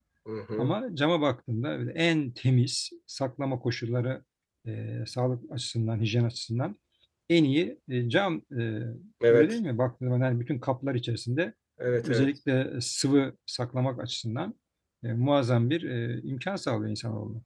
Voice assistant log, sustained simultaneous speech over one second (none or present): none